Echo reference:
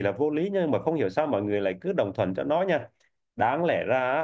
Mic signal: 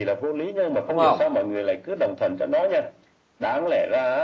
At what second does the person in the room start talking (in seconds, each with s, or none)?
0.8 s